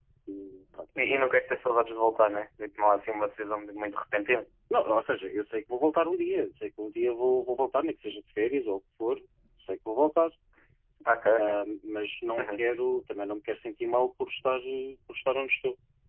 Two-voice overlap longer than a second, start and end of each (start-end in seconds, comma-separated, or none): none